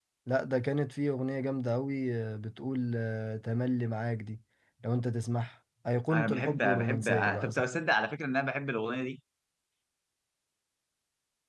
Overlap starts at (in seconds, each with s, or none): 6.1 s